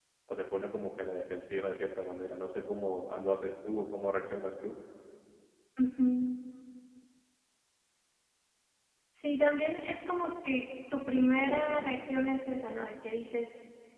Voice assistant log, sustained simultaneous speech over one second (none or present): none